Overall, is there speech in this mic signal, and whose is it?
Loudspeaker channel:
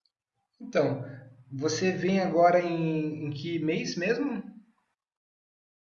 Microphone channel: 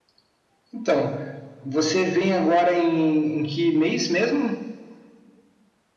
echo only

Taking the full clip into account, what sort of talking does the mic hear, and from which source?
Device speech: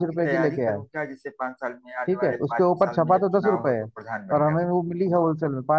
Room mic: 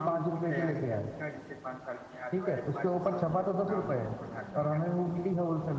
echo only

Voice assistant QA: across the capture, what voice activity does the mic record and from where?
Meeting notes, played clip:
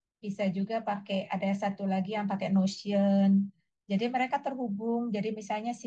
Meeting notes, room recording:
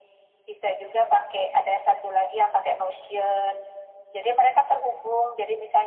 echo only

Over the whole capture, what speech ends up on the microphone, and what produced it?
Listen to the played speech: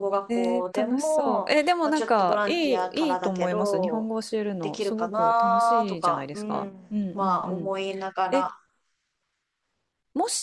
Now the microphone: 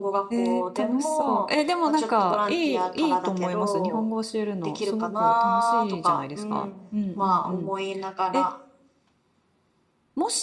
echo only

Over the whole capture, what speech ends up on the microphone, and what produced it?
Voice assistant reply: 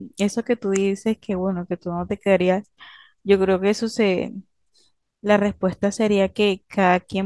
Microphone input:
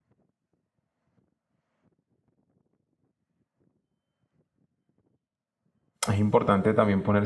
user only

